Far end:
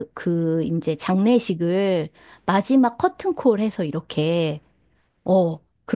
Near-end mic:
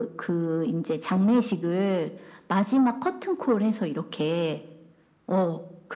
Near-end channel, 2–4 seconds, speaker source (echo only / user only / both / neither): echo only